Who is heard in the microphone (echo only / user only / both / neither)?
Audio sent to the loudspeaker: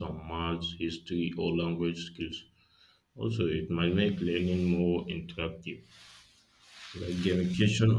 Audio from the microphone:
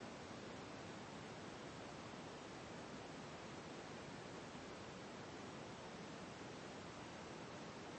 neither